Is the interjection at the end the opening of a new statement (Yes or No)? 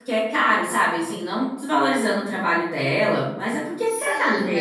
Yes